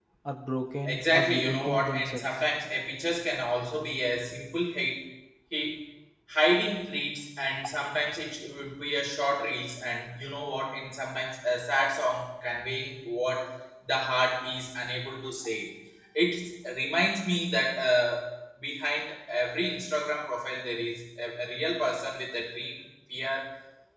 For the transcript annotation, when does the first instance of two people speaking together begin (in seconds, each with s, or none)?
0.8 s